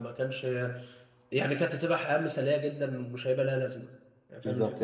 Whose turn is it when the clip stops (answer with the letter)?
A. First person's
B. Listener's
B